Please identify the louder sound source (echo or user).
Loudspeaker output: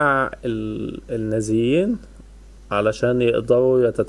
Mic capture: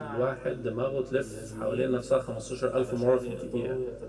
user